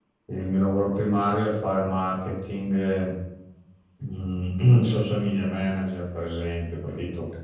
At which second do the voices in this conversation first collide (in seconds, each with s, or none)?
none